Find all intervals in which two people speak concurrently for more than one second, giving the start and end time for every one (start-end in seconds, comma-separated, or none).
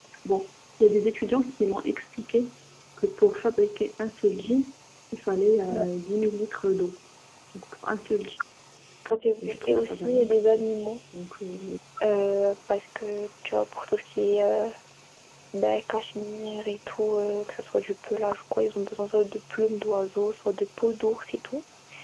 9.4-10.7